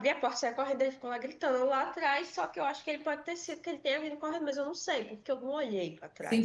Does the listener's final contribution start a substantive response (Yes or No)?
Yes